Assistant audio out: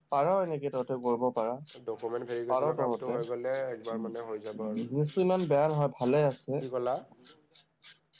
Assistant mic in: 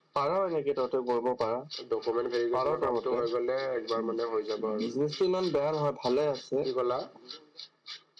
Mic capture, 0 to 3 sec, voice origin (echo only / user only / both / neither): echo only